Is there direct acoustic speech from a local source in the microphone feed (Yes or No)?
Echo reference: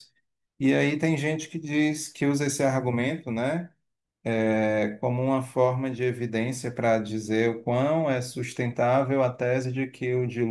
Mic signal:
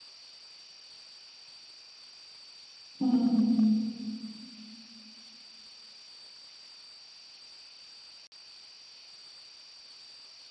Yes